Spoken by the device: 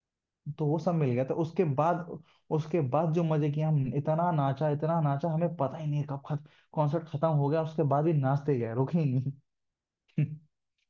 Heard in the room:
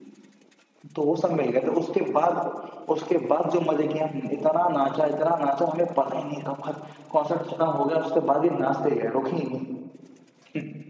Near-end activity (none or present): none